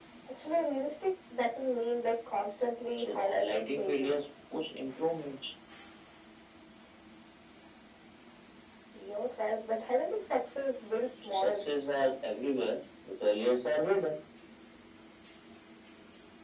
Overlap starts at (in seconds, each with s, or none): 3.0 s